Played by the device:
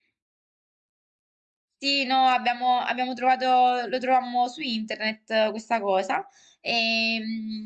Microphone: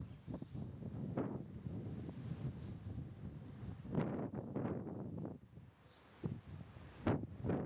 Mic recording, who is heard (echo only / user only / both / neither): neither